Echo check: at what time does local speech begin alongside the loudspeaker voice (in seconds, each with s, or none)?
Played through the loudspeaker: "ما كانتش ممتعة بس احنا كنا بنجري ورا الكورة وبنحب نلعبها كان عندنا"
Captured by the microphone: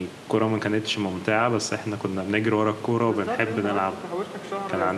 3.0 s